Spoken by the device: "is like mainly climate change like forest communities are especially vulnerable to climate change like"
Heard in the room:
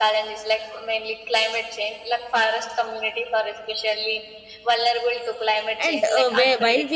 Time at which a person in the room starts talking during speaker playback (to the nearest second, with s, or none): 6 s